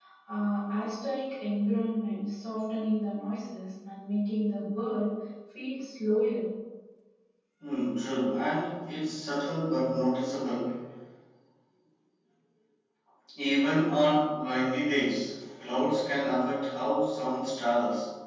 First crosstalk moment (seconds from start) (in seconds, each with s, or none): none